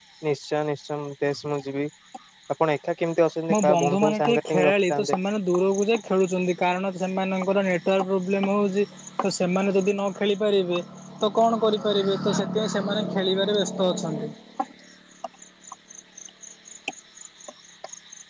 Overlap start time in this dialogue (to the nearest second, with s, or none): 4 s